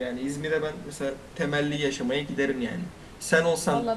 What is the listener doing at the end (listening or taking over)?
listening